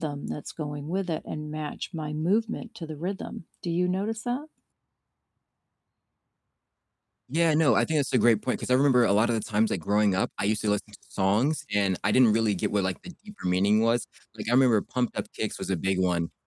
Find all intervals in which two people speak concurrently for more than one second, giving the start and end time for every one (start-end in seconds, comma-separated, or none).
none